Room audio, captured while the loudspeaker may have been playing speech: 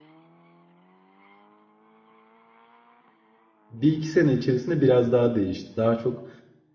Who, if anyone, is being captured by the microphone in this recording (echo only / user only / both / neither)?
user only